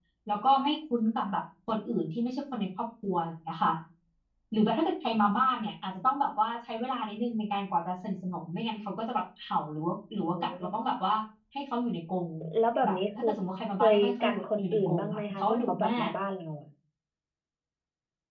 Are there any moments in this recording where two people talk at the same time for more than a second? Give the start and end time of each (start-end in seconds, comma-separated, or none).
13.8-16.1